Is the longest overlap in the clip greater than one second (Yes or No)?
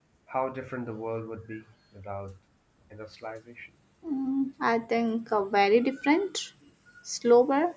No